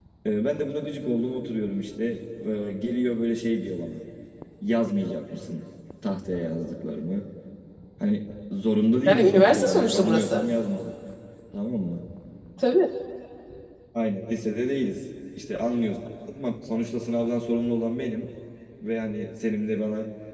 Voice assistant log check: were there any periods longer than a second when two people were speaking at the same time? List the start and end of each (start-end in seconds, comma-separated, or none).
9.1-10.4